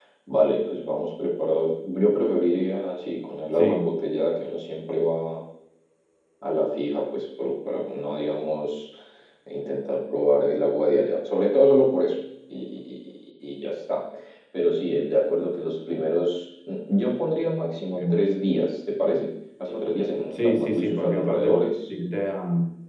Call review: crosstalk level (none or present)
present